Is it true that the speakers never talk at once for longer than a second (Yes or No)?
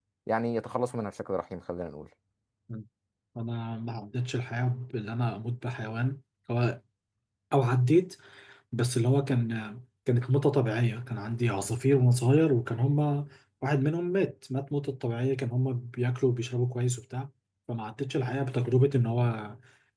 Yes